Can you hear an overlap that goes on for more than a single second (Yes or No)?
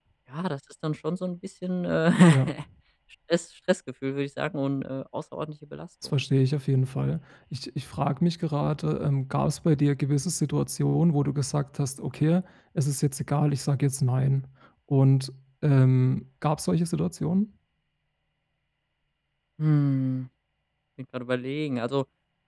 No